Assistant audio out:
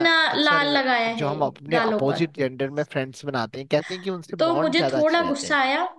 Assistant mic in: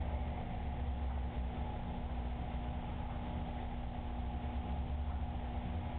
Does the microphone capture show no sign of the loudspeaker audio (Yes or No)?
Yes